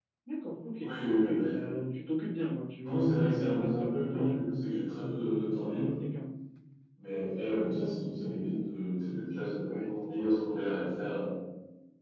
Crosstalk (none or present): present